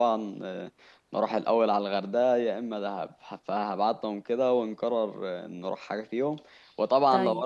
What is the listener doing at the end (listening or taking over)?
listening